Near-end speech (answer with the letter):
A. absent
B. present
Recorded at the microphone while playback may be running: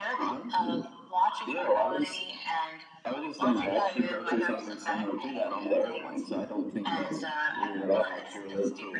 A